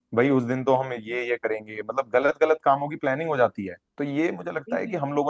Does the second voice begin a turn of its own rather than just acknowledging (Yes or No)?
No